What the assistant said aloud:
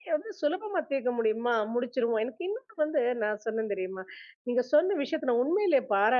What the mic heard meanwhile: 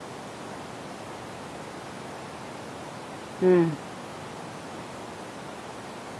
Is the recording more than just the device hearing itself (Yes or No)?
Yes